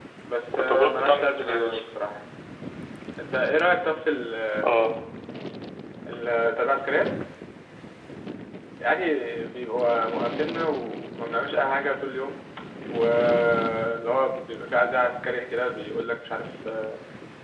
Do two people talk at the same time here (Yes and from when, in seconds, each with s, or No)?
Yes, from 0.5 s